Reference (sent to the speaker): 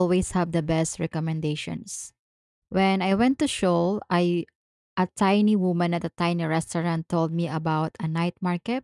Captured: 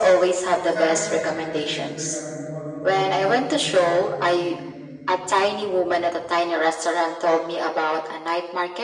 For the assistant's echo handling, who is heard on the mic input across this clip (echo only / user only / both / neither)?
both